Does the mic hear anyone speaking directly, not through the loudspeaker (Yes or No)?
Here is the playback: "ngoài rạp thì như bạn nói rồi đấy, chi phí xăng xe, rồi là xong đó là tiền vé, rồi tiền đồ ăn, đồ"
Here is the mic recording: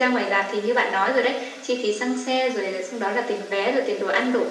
No